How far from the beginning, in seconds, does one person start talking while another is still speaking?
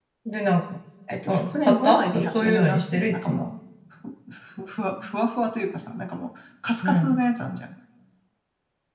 1.3 s

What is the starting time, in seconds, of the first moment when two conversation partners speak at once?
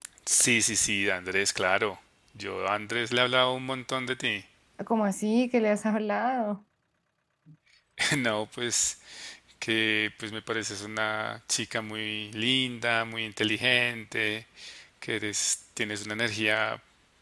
none

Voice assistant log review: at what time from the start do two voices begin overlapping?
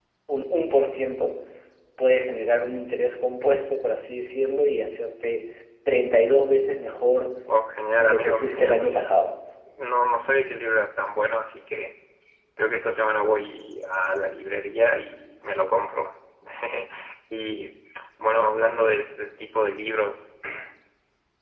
7.9 s

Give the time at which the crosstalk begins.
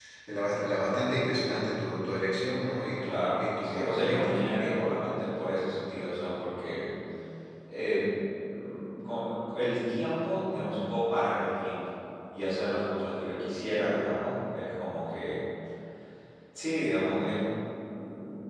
3.0 s

